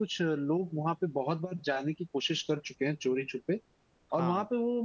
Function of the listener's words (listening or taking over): listening